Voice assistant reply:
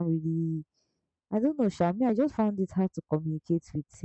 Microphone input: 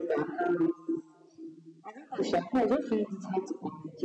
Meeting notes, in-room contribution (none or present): none